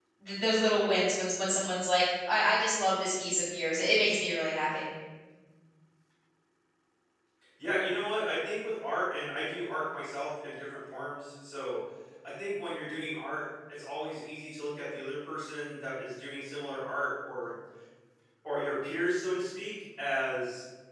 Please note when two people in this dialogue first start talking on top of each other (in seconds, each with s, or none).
none